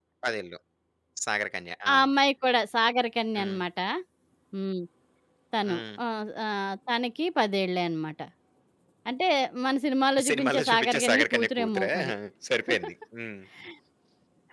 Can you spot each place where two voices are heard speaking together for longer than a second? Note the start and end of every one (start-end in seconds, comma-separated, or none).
10.3-11.9